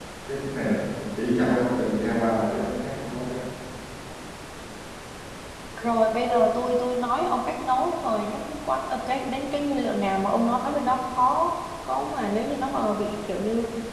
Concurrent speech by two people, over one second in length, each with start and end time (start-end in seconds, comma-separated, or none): none